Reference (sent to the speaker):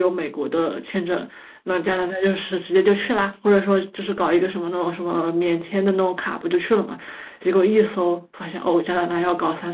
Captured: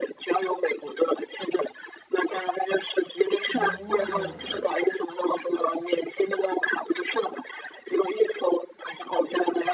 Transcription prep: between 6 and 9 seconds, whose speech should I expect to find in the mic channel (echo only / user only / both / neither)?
echo only